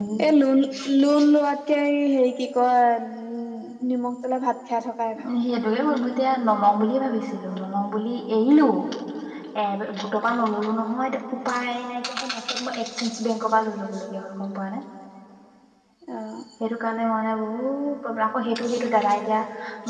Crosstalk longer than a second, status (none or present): none